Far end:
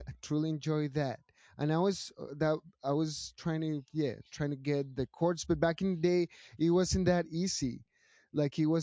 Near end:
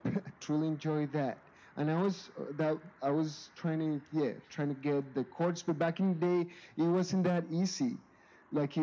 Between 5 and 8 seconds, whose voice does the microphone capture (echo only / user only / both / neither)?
echo only